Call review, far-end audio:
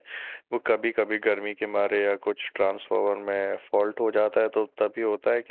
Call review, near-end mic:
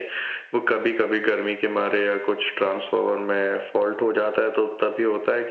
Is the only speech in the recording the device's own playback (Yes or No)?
Yes